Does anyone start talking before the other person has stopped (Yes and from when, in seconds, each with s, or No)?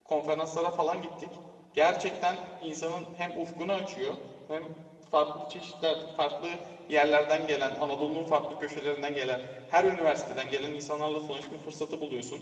No